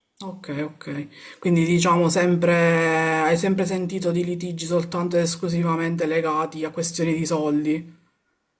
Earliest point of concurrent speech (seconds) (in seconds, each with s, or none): none